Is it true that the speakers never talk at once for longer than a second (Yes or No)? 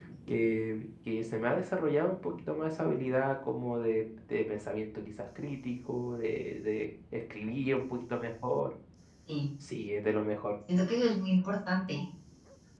Yes